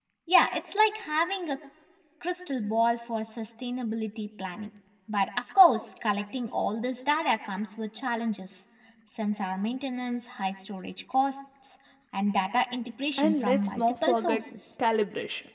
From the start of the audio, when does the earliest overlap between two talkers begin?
13.2 s

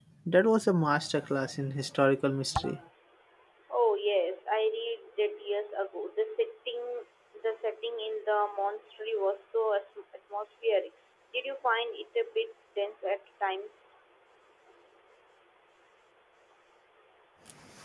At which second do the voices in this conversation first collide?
none

